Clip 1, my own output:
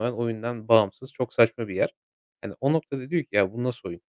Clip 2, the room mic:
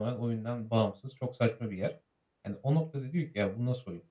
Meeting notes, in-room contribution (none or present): none